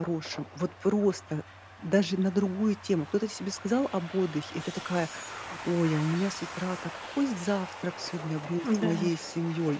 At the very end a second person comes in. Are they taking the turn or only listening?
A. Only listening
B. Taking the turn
A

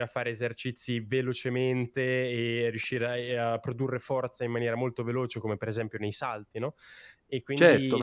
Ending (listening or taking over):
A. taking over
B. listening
A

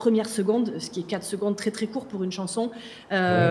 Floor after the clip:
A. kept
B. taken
A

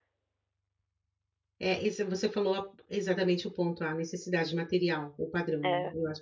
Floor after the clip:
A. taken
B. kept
B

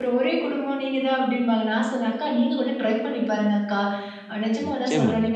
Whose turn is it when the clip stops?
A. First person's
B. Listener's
A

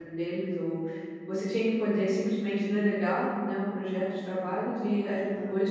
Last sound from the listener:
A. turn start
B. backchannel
B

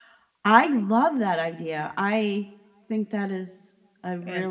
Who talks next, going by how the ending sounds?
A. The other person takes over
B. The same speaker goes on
A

